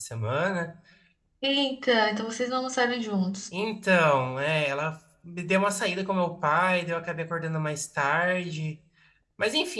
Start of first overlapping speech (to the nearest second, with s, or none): none